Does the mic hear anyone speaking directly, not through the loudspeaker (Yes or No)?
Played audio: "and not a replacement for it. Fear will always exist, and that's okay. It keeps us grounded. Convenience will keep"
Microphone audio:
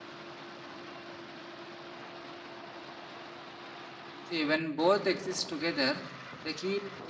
Yes